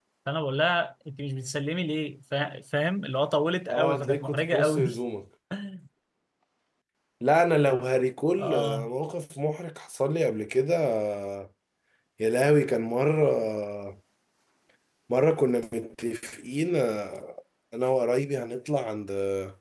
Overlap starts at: 4 s

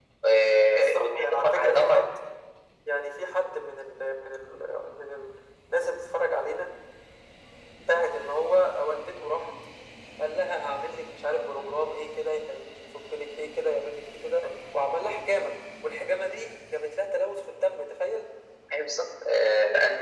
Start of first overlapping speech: 1 s

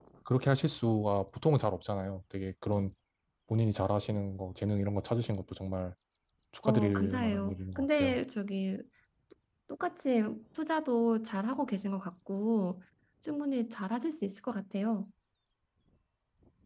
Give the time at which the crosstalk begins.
7 s

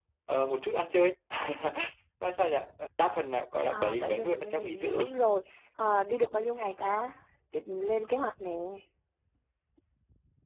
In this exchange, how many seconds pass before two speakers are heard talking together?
4 s

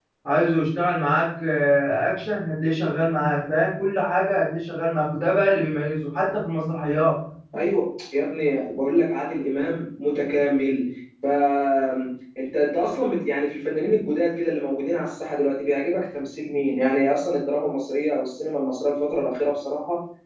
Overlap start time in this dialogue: none

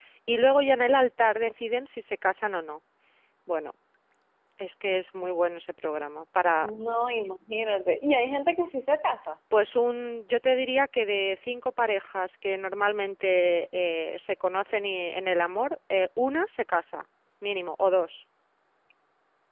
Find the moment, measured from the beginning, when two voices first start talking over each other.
none

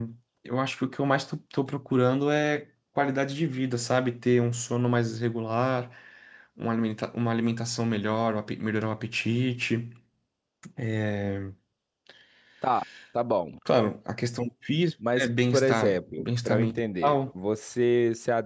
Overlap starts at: 15 s

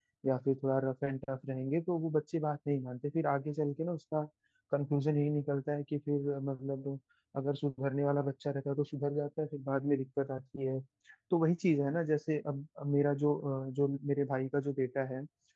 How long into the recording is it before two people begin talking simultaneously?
none

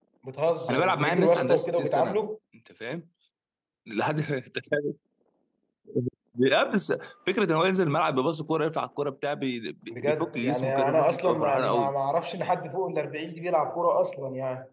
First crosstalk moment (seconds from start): 1 s

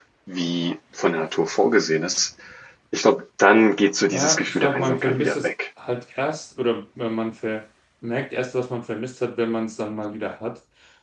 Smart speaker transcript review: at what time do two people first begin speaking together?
4 s

